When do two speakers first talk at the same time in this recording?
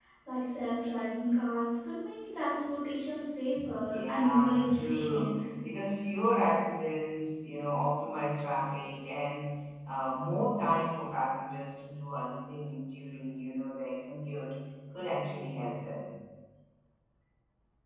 4 s

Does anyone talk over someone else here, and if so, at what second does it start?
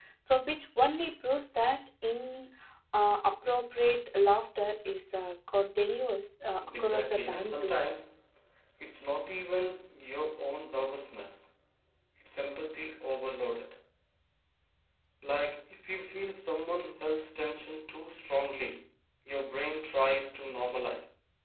6 s

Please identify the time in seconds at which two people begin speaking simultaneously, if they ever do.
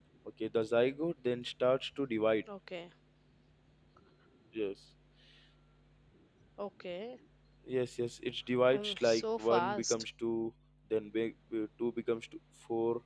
9 s

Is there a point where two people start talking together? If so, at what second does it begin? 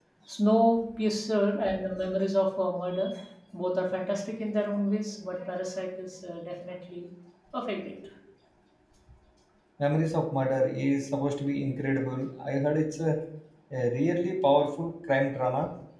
none

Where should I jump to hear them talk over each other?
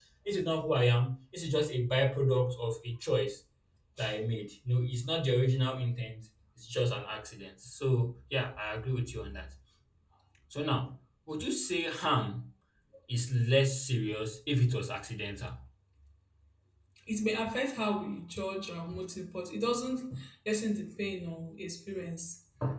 none

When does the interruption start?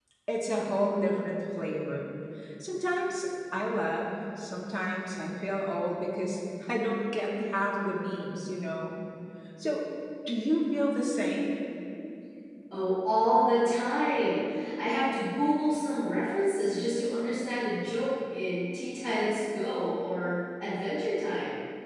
none

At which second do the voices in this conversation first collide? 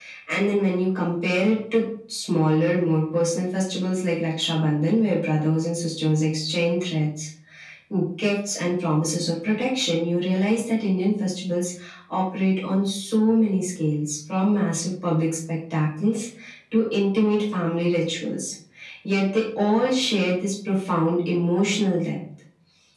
none

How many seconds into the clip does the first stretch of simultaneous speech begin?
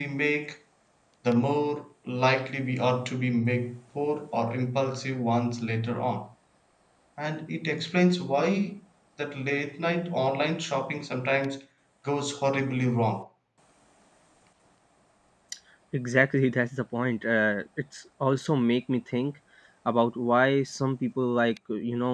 none

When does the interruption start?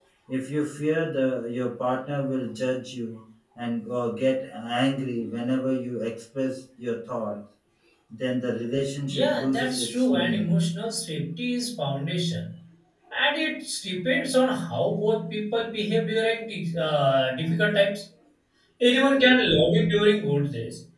9 s

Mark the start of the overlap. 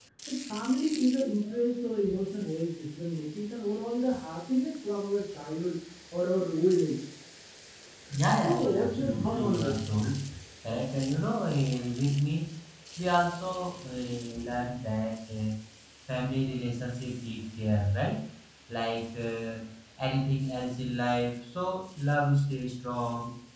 8 s

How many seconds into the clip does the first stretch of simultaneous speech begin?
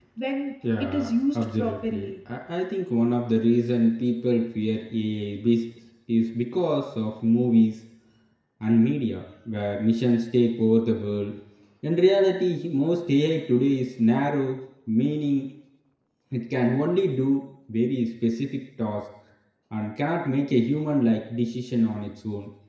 1 s

